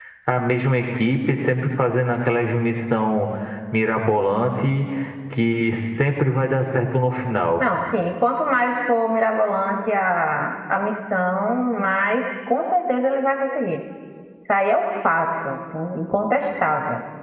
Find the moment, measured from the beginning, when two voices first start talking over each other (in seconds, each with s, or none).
none